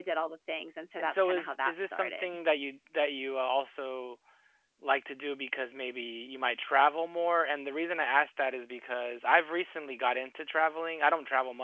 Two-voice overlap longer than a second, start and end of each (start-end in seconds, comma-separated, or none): 1.0-2.3